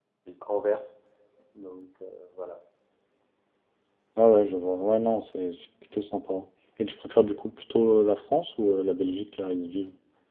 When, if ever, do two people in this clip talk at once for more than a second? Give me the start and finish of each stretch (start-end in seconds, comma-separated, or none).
none